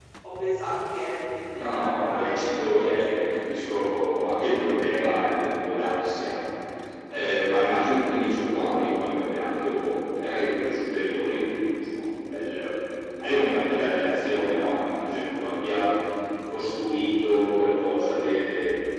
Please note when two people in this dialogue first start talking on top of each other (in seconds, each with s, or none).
1.5 s